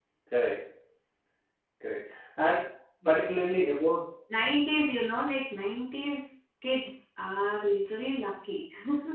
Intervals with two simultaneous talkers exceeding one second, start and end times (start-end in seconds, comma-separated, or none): none